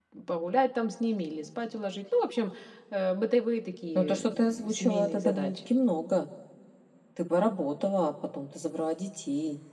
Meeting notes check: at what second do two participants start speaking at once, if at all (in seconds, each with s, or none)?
4.0 s